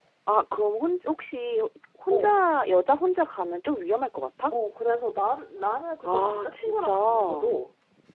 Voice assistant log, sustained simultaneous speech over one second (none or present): present